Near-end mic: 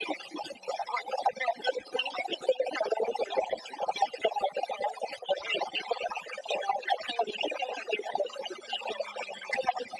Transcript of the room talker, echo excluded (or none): none